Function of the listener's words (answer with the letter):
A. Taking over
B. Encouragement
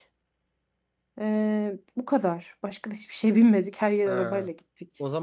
A